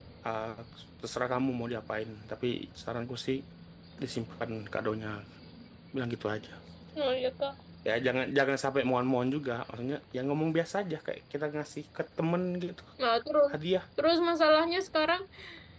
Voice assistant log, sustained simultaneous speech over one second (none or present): none